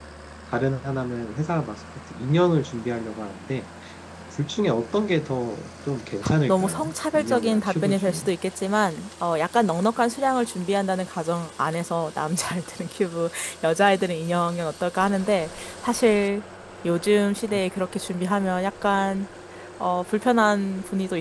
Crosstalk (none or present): present